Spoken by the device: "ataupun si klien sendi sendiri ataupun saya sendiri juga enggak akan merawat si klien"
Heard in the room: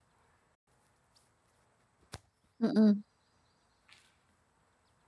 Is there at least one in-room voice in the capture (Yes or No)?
Yes